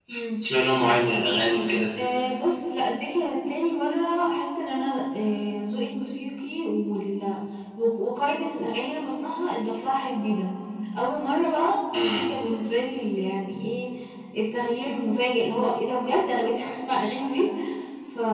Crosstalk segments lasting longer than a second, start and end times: none

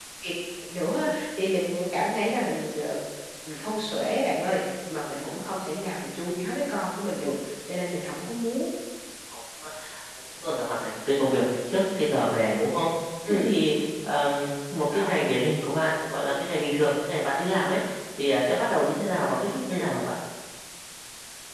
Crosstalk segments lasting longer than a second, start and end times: none

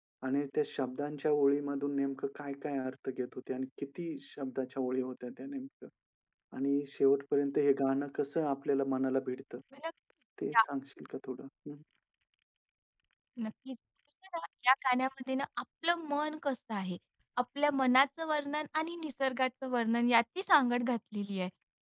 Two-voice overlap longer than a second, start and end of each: none

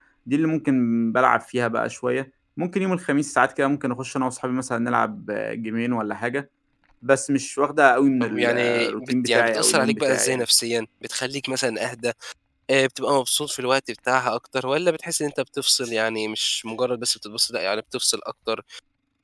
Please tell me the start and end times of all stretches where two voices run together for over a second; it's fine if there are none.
8.2-10.4

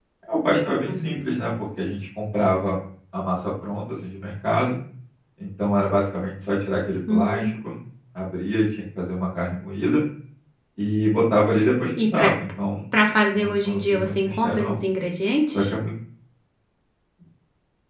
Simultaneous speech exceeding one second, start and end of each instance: 13.3-14.8

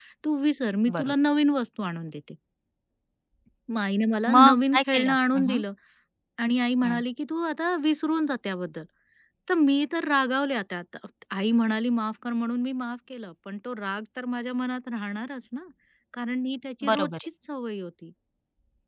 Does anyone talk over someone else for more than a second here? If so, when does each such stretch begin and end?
4.3-5.6

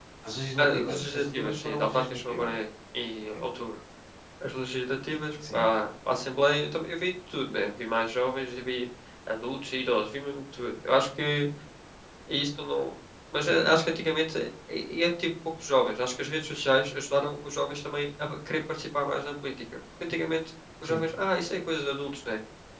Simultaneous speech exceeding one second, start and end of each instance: 0.6-2.5

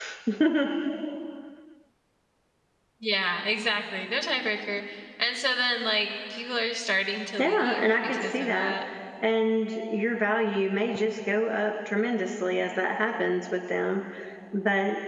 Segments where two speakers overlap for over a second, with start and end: 7.4-8.7

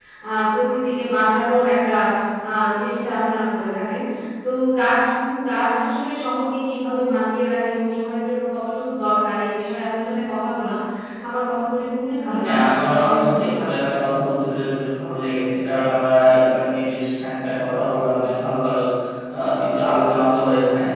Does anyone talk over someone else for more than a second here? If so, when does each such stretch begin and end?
12.4-13.7

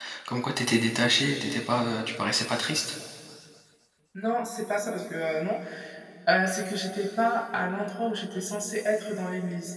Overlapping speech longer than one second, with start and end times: none

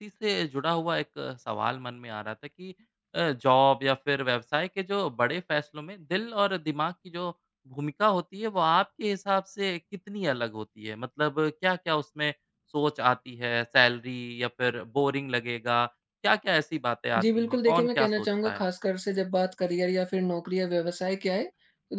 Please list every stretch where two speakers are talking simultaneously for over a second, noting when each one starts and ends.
17.2-18.6

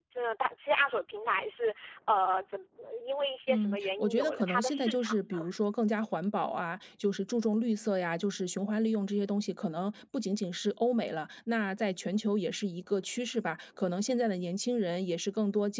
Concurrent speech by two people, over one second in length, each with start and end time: 3.5-5.5

